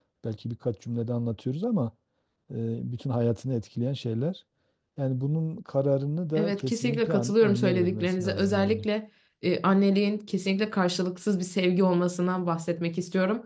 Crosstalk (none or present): present